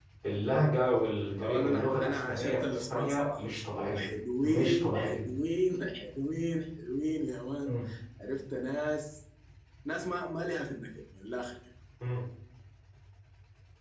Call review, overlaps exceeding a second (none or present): present